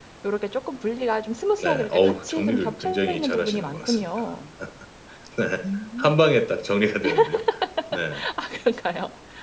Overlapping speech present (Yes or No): Yes